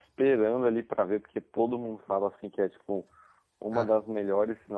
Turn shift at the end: No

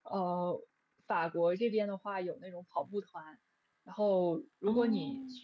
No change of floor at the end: Yes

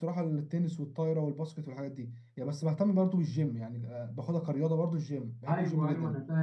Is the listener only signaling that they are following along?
No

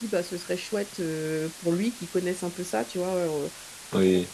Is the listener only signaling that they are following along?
Yes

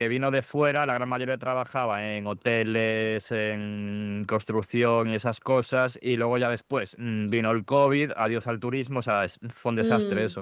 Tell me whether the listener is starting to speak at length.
Yes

